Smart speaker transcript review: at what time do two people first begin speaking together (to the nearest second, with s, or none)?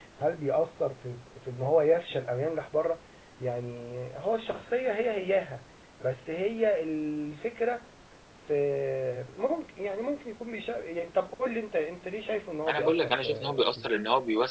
13 s